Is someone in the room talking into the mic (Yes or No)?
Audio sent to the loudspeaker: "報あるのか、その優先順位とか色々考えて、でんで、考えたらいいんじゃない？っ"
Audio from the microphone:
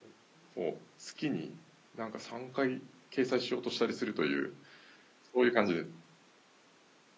Yes